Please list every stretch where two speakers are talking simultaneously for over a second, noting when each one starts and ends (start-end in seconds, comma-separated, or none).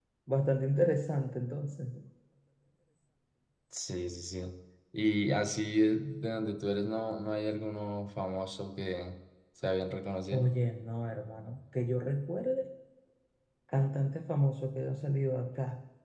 none